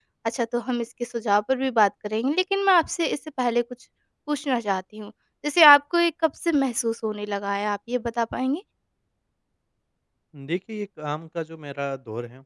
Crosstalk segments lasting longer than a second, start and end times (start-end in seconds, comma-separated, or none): none